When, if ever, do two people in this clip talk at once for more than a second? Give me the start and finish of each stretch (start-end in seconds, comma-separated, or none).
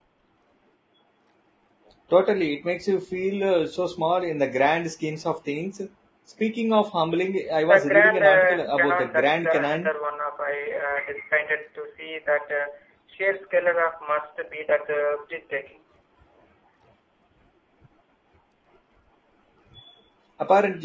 7.7-9.9